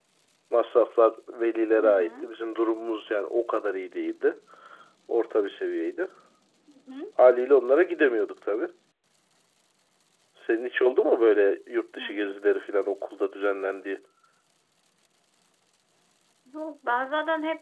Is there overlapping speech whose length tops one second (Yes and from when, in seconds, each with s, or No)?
No